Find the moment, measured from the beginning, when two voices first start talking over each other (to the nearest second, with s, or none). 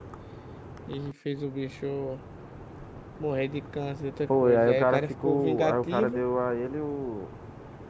4 s